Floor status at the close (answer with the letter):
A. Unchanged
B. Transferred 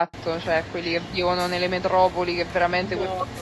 A